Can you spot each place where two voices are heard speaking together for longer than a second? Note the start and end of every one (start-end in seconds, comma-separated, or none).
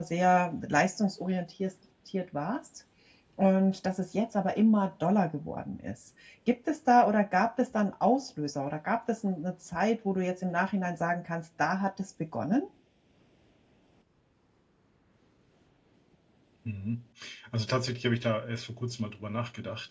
none